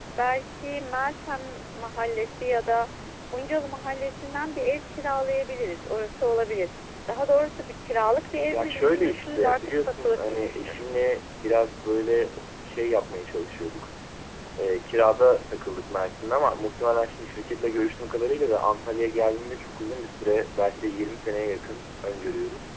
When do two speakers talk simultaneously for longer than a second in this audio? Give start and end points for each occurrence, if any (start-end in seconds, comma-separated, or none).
8.5-11.0